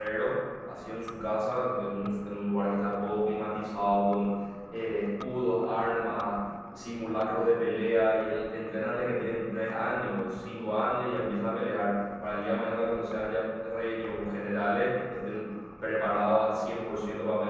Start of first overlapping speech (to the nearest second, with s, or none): none